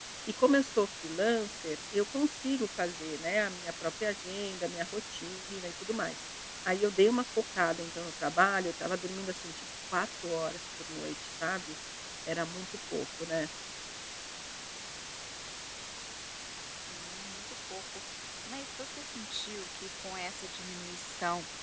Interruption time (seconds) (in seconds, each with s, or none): none